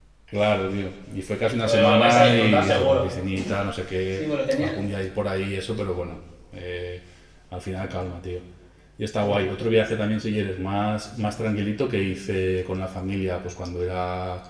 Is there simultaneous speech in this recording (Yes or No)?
Yes